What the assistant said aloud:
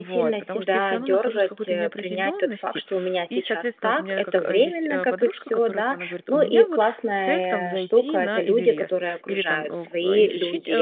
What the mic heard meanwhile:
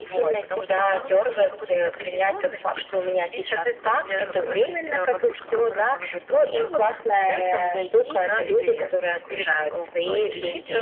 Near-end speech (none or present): none